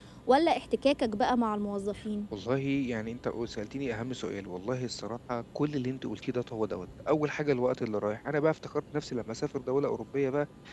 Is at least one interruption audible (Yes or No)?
No